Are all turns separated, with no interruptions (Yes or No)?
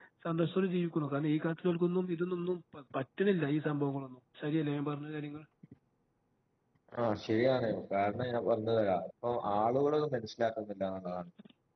Yes